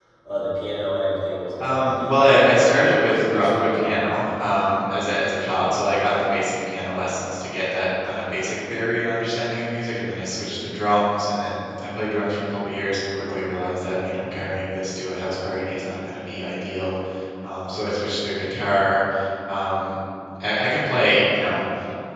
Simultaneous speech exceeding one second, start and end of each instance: 1.6-4.0

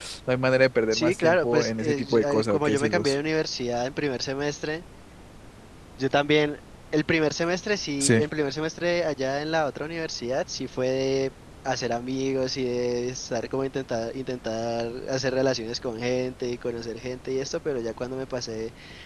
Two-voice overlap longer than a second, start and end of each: 0.9-3.2

